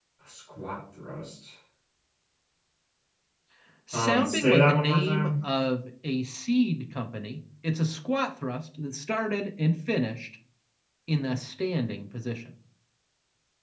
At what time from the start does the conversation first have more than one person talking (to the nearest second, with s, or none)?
4 s